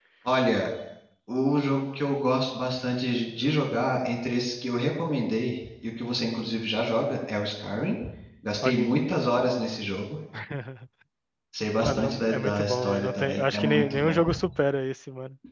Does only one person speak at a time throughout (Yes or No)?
No